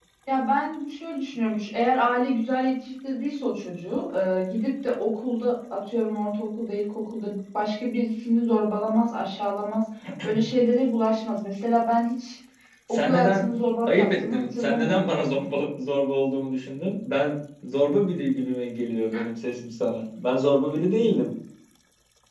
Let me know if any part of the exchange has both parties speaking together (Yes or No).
Yes